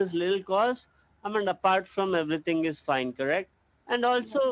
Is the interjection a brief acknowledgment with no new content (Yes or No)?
Yes